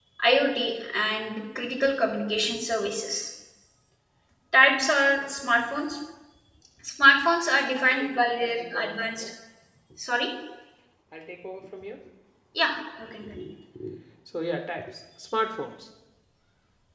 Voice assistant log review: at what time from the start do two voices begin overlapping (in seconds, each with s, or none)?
7.9 s